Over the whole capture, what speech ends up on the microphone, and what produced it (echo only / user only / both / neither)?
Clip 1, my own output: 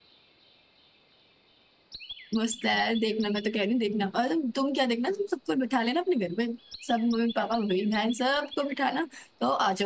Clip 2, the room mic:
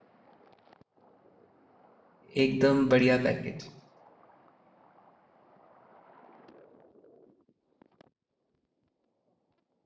user only